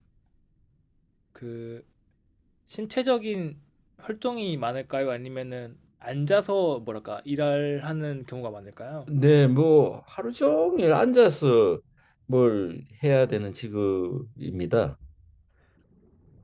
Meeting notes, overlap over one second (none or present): none